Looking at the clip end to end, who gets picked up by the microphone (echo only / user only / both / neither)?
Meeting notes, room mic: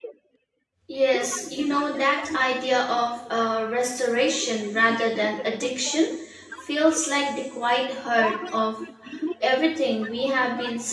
both